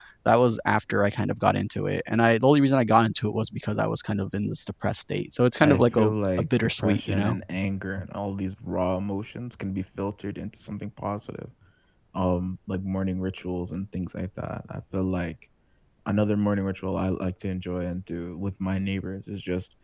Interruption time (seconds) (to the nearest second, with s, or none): 6 s